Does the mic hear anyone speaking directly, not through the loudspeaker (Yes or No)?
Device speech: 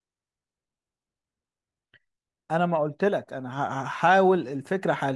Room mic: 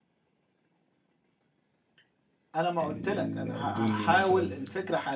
Yes